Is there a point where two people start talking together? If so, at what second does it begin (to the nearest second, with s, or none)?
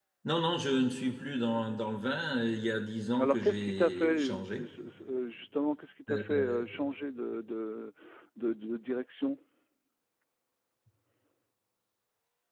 3 s